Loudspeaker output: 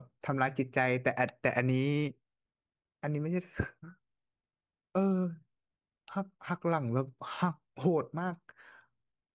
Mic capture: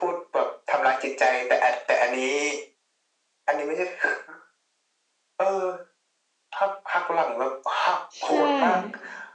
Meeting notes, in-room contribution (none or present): present